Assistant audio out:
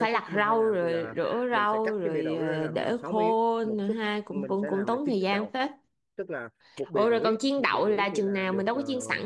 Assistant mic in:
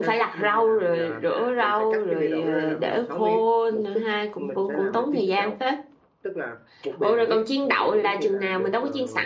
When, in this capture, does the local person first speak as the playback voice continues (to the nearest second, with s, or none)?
none